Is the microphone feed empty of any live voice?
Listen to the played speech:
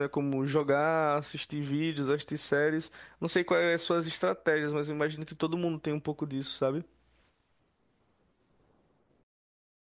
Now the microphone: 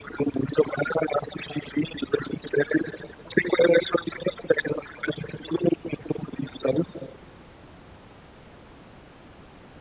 Yes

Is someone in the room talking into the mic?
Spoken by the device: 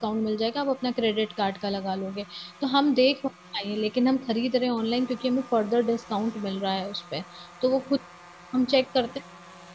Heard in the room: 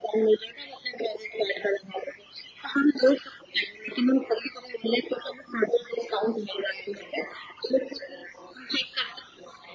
No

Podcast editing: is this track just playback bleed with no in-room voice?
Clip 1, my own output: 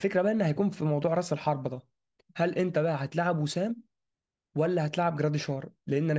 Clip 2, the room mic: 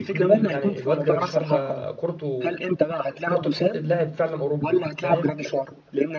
No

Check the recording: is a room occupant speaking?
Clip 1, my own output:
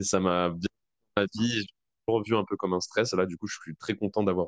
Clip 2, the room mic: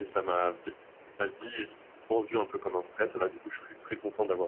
No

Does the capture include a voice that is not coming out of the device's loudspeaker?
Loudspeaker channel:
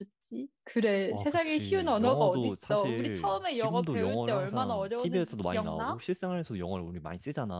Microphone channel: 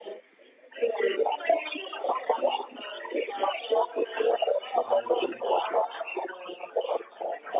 Yes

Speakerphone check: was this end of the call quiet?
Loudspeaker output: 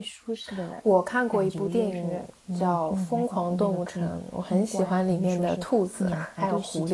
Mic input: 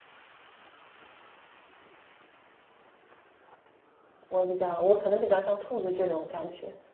No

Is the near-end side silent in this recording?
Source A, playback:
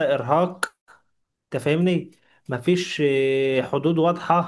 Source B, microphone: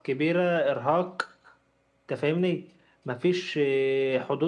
Yes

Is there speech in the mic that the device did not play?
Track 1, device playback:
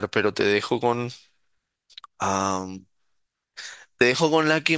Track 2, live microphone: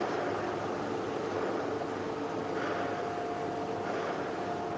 No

